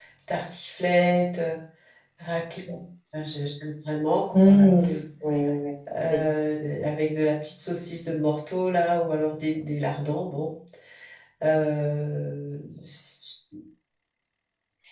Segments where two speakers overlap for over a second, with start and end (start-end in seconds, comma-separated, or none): none